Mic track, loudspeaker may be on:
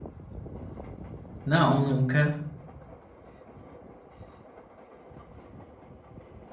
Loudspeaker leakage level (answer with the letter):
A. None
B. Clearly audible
A